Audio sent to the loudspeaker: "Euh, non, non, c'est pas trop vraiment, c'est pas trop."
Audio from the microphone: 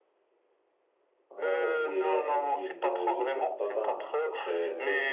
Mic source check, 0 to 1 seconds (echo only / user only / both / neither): neither